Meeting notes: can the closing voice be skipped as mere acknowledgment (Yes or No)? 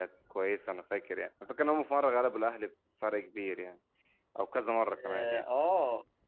No